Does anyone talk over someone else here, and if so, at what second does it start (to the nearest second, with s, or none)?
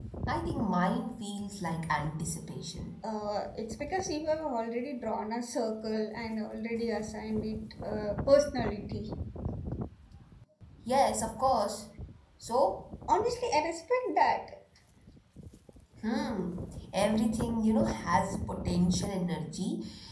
none